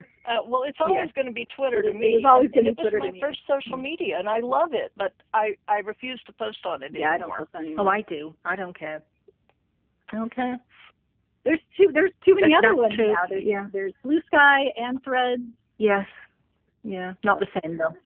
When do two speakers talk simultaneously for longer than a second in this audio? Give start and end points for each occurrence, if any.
1.7-3.3, 12.4-13.7

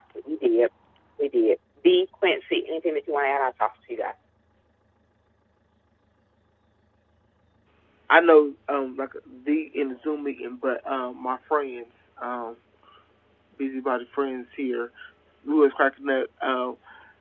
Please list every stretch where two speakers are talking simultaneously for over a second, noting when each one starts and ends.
none

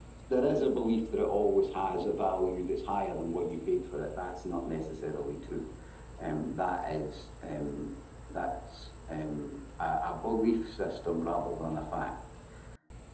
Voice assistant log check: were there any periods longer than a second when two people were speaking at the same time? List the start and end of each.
none

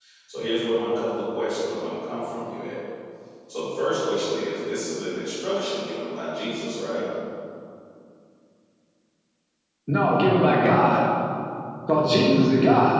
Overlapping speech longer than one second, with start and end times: none

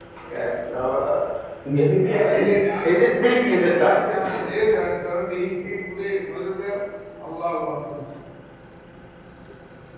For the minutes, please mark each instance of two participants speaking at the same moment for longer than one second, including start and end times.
2.1-4.0

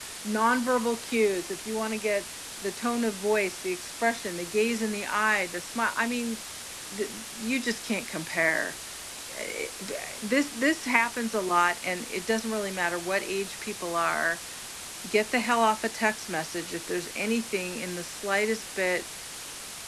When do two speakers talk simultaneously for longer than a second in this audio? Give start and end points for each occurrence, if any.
none

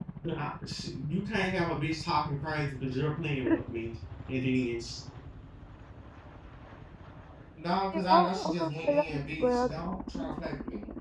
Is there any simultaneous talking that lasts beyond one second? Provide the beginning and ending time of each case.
7.9-9.7

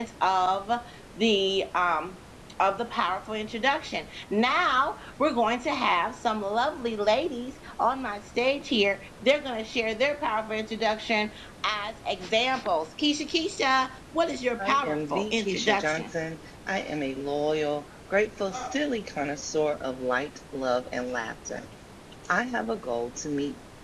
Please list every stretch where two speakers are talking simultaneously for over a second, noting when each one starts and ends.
14.6-16.1

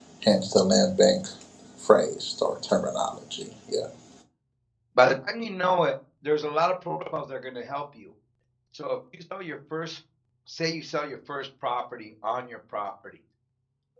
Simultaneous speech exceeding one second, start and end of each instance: none

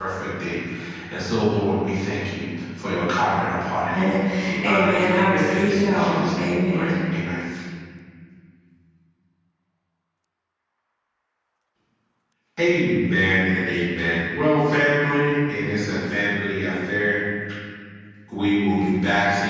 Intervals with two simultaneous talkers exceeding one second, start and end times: 4.6-6.9

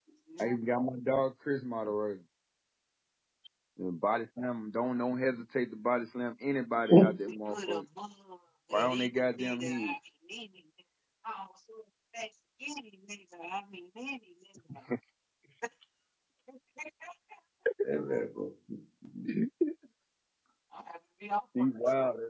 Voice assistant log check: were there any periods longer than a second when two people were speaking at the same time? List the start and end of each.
8.7-9.9

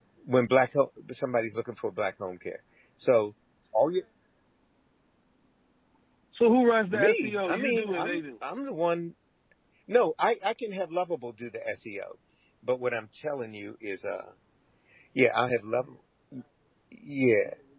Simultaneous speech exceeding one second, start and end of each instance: 6.9-8.2

